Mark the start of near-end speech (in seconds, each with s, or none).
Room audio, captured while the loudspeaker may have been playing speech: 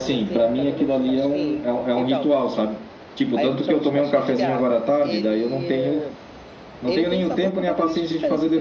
none